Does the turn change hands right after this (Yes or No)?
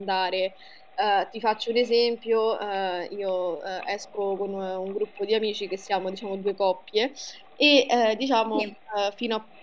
No